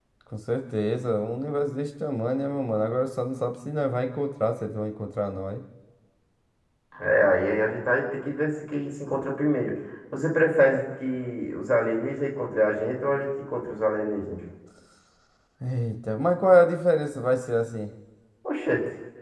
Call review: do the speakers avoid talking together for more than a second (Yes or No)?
Yes